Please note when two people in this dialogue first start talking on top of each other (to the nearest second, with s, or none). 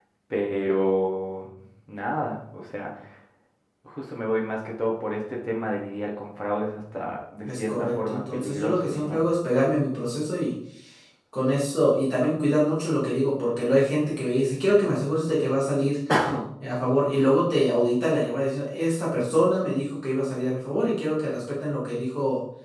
7 s